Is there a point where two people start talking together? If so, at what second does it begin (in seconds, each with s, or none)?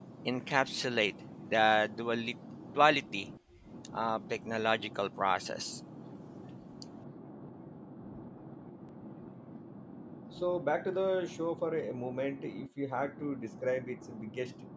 none